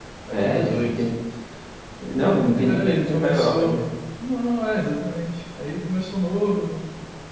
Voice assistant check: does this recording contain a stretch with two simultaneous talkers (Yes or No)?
Yes